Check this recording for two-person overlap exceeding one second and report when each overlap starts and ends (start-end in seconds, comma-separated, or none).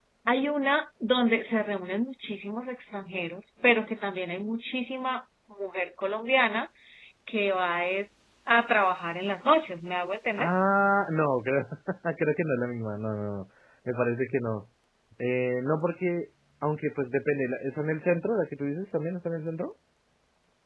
none